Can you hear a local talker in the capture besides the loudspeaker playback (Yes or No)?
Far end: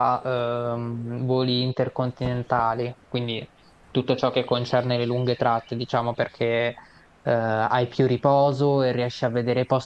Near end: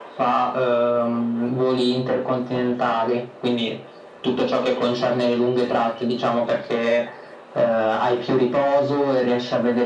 No